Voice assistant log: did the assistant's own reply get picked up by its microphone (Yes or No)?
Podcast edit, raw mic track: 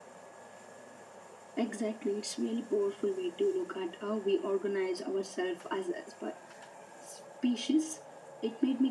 Yes